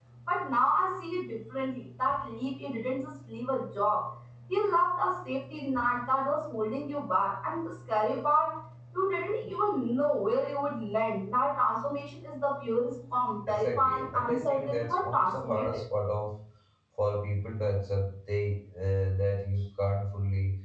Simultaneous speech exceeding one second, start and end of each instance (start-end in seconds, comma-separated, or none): 13.5-15.8